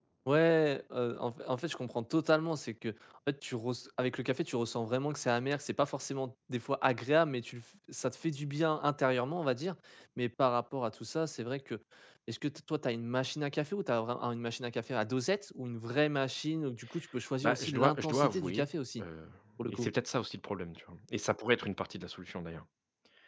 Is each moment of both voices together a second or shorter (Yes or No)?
No